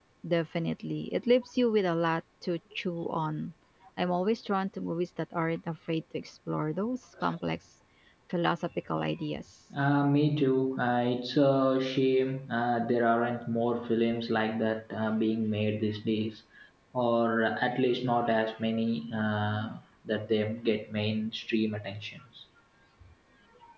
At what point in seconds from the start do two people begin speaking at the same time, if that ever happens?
none

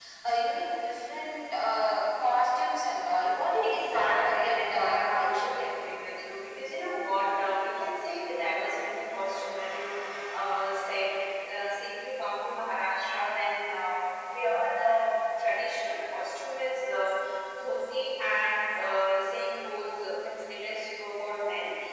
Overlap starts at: 3.6 s

